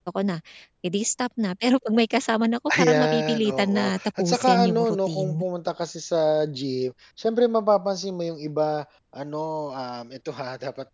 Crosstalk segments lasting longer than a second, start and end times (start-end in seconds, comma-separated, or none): 2.7-5.4